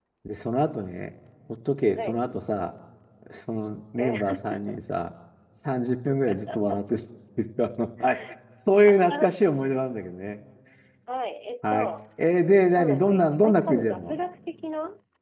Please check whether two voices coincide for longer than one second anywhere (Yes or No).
Yes